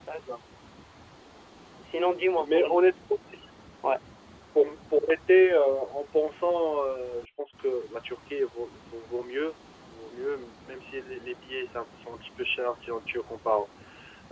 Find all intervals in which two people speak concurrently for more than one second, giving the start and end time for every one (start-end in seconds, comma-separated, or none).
none